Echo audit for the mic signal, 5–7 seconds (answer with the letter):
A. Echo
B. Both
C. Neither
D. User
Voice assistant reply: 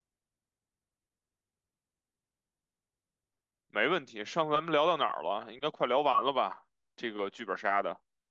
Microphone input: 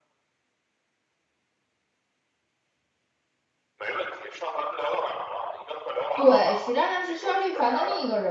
B